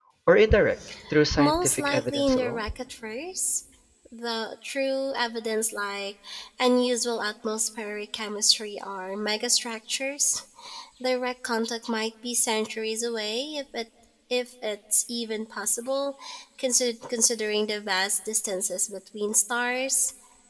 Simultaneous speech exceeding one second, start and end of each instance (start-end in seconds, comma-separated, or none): 1.4-2.6